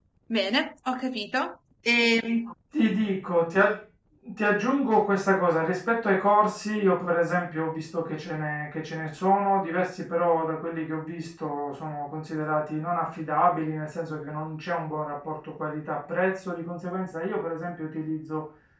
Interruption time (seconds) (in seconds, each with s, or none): none